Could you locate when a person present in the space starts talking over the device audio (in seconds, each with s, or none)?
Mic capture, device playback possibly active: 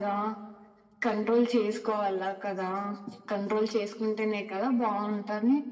none